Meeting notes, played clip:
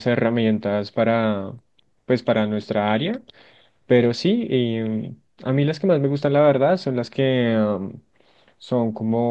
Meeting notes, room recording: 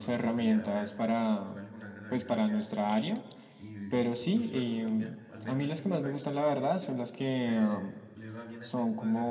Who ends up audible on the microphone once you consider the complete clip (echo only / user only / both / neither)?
both